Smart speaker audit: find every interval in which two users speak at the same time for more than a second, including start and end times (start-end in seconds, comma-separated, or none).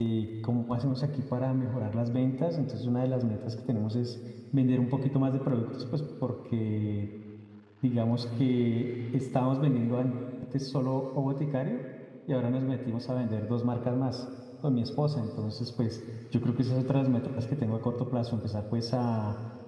none